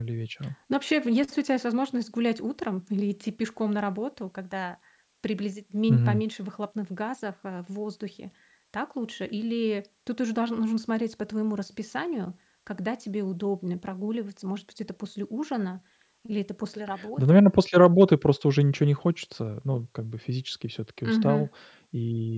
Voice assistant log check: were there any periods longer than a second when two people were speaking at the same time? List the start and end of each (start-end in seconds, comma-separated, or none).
none